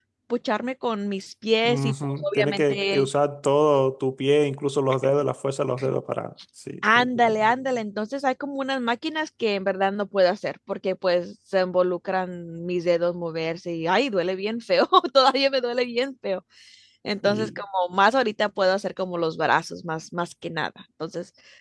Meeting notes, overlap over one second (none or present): present